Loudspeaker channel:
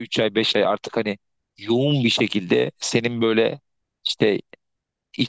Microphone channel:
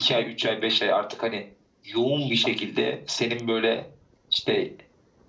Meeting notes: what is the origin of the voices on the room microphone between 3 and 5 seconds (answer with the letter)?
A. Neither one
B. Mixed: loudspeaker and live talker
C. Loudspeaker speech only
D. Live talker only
C